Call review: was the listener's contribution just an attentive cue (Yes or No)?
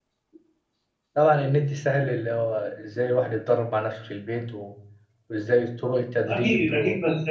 No